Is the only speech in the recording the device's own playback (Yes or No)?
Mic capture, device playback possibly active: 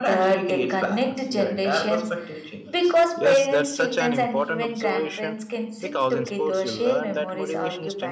No